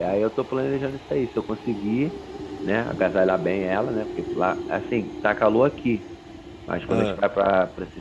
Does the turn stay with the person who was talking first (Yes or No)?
Yes